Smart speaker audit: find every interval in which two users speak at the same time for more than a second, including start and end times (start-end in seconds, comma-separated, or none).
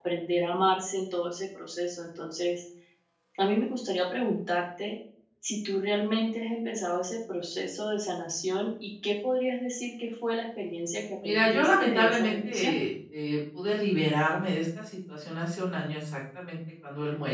11.2-12.8